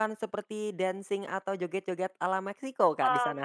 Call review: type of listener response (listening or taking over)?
taking over